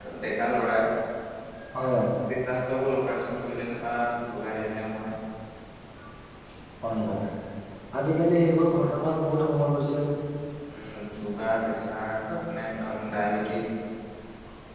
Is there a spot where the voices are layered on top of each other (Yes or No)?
No